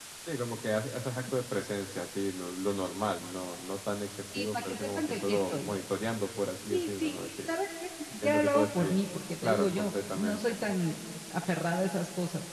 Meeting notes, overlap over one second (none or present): present